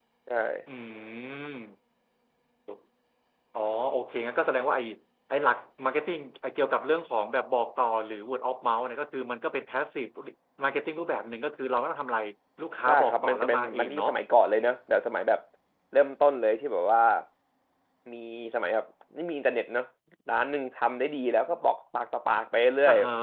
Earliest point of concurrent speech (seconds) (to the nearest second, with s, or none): 13 s